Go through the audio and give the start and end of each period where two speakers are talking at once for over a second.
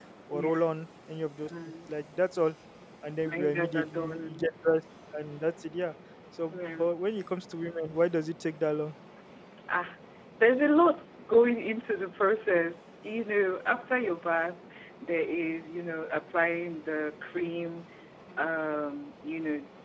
3.2-4.5

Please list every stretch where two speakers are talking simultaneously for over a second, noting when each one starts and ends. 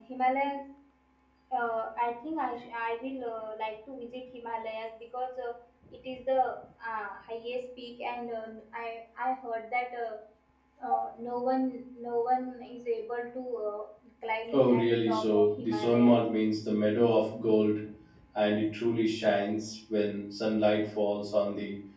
14.5-16.2

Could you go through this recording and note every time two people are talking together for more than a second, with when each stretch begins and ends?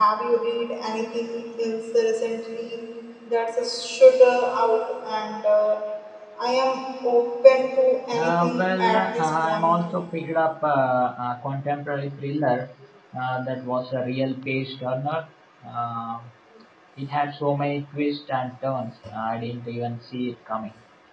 8.2-9.8

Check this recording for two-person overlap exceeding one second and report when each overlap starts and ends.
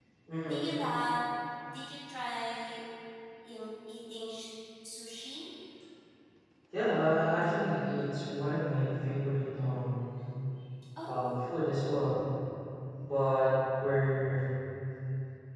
none

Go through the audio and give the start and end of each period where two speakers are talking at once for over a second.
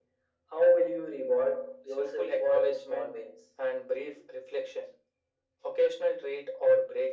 1.9-3.1

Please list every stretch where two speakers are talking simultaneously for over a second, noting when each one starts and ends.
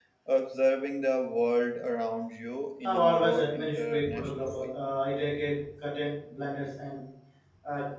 2.9-4.7

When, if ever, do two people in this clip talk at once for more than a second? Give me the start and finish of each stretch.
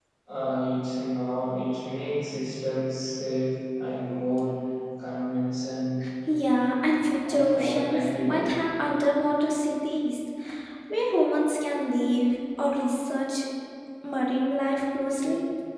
7.3-8.5

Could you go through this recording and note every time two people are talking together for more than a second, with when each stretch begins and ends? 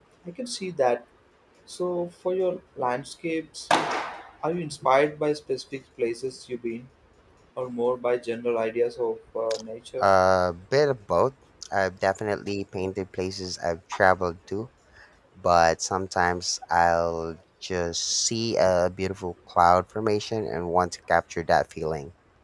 none

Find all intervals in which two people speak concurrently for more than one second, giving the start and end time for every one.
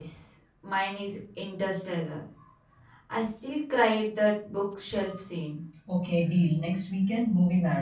none

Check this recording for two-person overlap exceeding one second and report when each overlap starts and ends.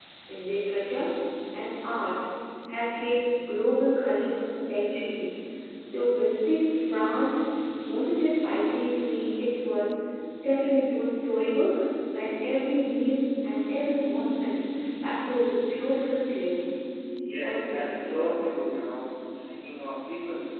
17.4-18.6

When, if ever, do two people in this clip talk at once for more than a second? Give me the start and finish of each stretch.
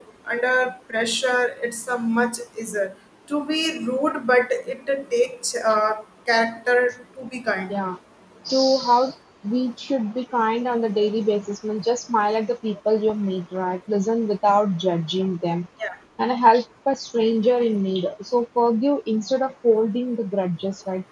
none

